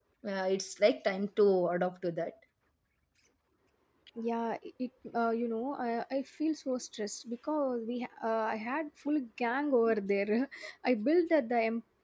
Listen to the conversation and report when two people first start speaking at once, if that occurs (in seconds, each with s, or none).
none